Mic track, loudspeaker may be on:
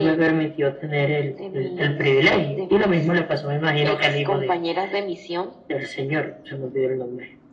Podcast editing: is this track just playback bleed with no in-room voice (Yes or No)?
Yes